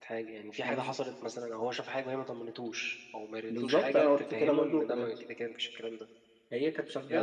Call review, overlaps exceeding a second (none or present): present